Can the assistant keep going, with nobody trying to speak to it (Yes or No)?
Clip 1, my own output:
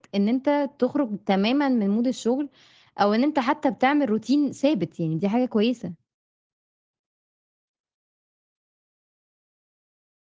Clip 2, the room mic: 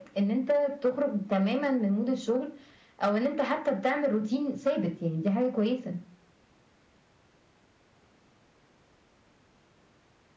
Yes